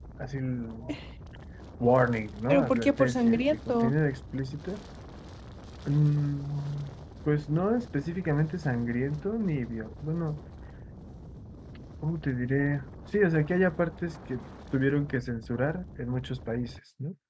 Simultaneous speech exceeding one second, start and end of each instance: 2.5-3.9

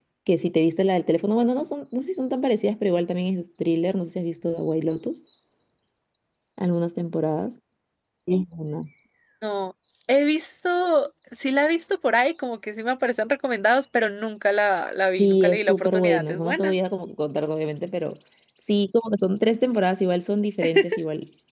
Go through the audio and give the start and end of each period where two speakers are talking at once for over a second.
15.2-16.7

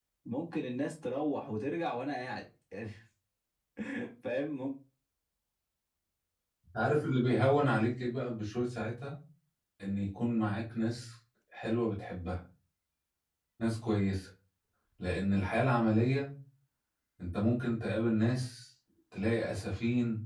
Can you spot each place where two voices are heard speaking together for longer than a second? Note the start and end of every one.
none

